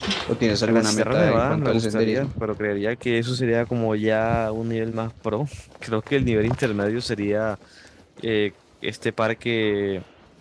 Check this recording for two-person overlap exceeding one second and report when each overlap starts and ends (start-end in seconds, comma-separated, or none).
0.7-2.3